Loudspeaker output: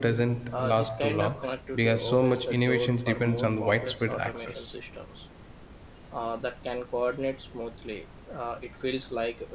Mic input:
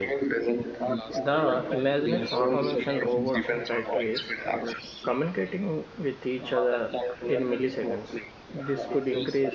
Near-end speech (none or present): present